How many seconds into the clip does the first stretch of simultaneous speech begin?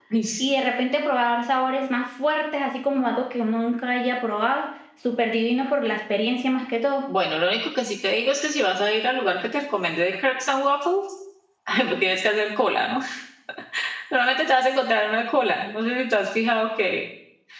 none

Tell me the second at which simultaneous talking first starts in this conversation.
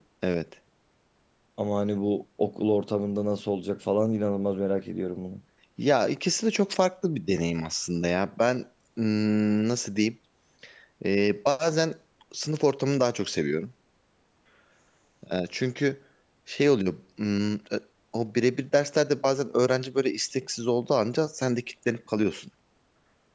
none

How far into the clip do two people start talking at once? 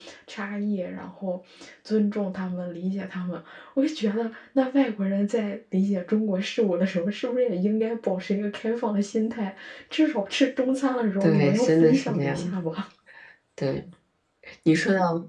11.2 s

